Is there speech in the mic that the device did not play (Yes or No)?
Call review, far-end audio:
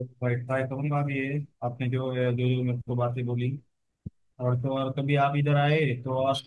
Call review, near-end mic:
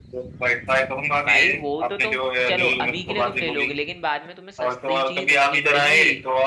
Yes